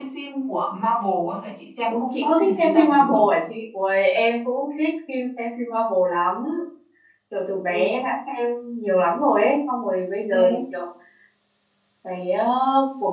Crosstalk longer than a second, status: present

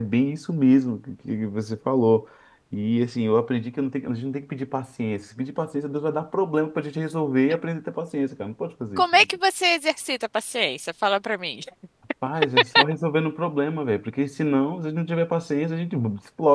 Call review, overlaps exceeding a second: none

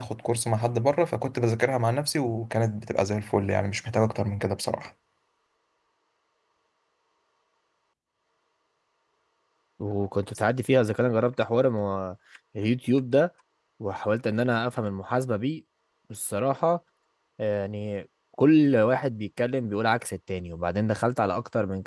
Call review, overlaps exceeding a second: none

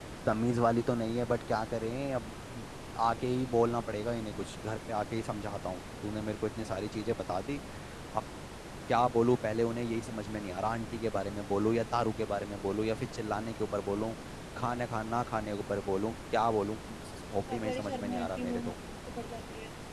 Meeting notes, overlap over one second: present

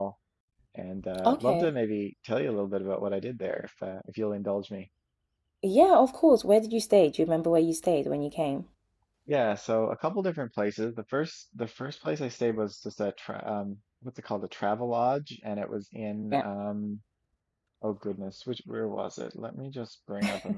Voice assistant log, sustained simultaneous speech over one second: none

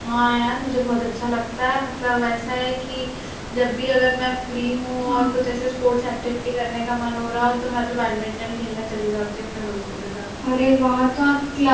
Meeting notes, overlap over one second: none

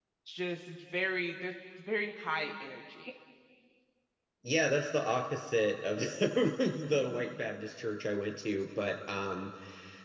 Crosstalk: none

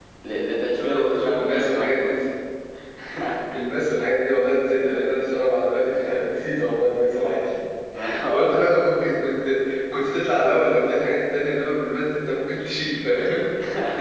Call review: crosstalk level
present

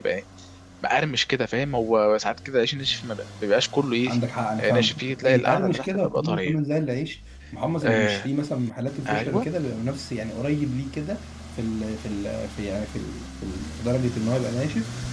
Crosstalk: present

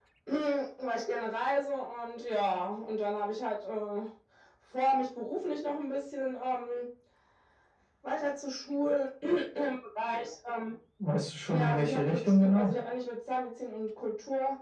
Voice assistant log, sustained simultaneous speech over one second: present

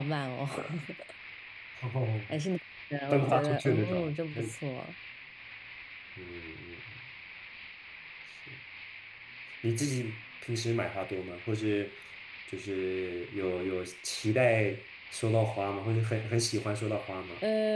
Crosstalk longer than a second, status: present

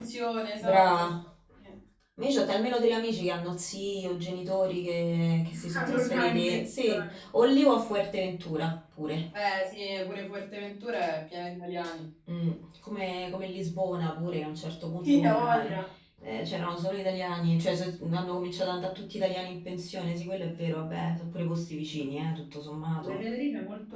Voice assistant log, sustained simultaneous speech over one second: present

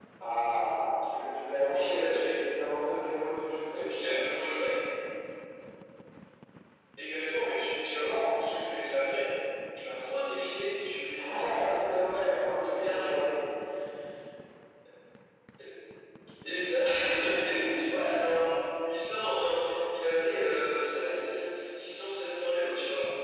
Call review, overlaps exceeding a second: present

